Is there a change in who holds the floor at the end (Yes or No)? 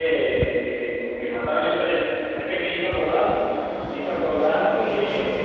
No